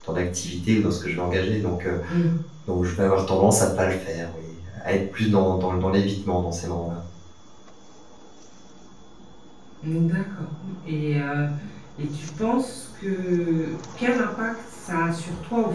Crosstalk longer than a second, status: none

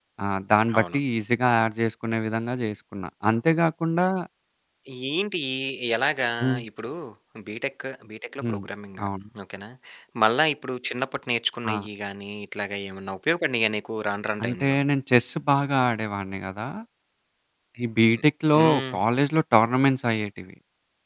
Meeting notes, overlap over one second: none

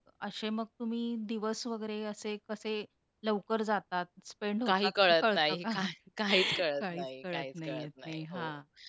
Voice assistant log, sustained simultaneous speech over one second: present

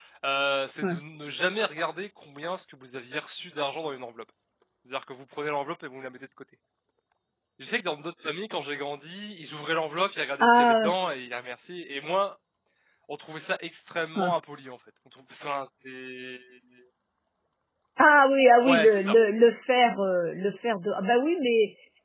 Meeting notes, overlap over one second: none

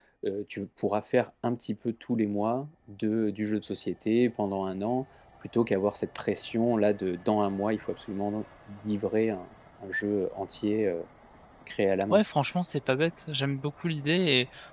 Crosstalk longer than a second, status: none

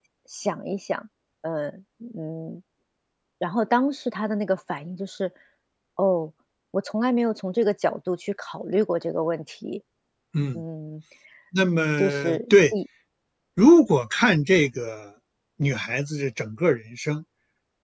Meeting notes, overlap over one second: none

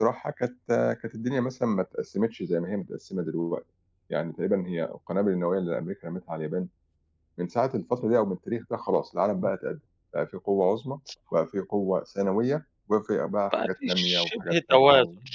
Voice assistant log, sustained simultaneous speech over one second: present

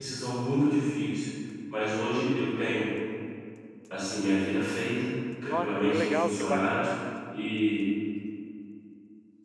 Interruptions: present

